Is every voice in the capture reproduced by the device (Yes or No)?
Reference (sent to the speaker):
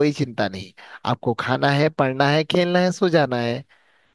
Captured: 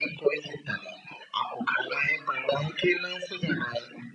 Yes